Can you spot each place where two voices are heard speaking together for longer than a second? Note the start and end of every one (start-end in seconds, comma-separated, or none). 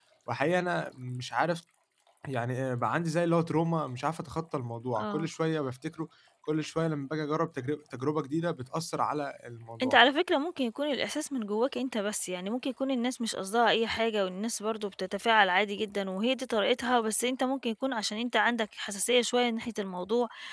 none